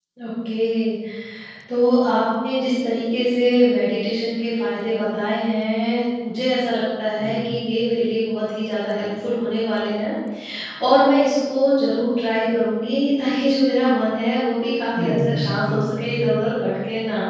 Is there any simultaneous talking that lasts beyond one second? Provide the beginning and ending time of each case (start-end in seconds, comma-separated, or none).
15.0-16.3